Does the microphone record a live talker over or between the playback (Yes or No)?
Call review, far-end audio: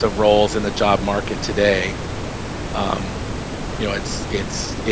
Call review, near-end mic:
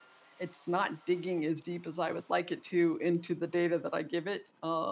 Yes